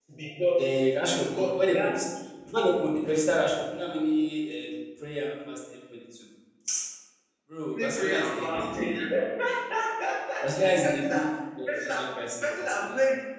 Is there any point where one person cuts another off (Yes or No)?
Yes